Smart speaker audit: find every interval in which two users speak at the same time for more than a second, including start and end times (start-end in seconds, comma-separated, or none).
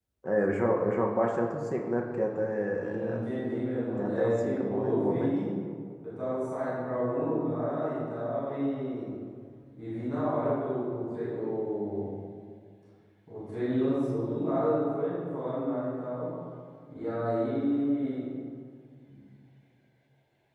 4.0-5.3